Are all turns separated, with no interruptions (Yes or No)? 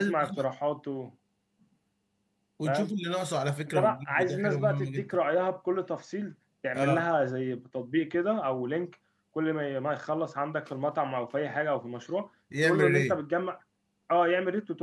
No